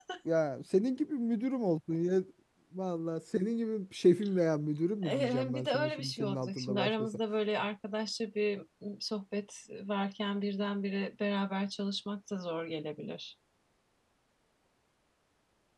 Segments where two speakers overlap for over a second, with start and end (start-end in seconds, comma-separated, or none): 5.0-7.1